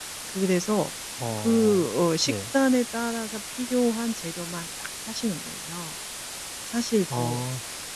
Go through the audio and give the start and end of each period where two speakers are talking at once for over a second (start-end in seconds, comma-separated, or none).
none